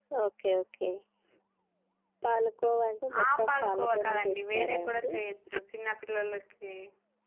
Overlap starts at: 3.4 s

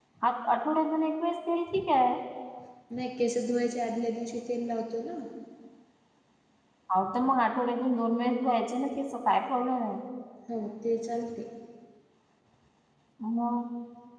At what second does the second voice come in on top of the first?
none

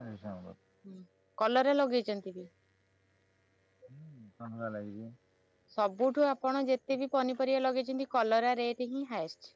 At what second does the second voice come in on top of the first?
none

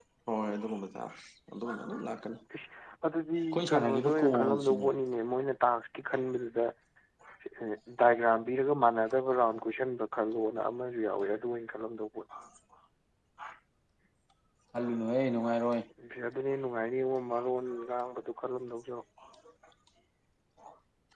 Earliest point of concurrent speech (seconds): 3.4 s

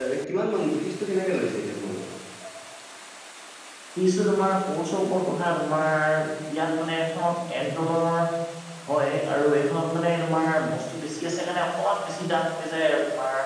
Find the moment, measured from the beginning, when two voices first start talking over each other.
none

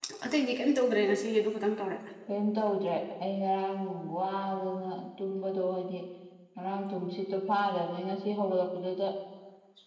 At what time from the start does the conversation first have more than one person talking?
none

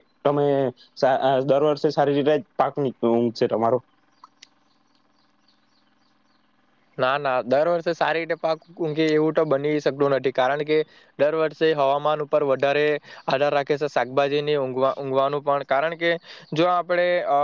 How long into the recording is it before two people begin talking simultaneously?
none

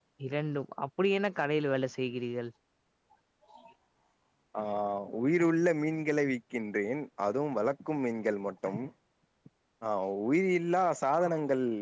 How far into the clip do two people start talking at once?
none

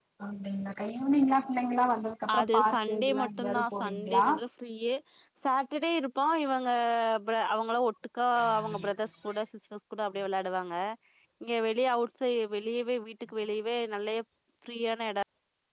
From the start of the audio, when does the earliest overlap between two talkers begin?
2.4 s

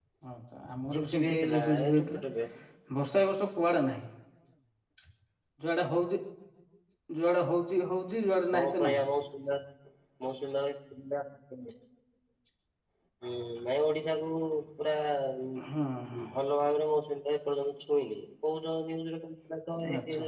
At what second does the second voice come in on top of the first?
0.9 s

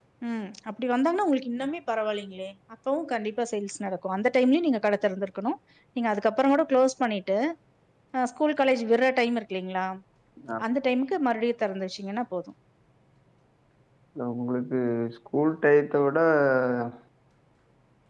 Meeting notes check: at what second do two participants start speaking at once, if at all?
none

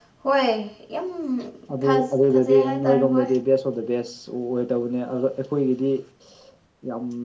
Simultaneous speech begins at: 1.9 s

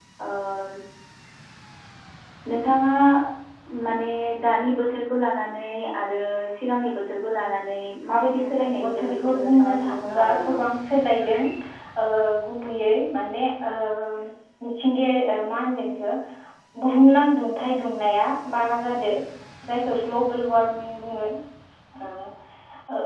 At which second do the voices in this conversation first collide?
8.4 s

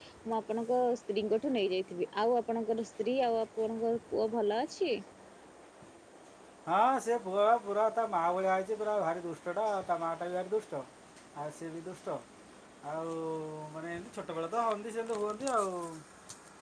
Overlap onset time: none

